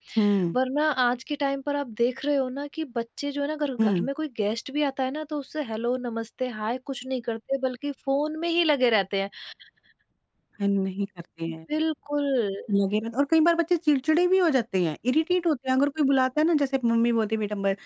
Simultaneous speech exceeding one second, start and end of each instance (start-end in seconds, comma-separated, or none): none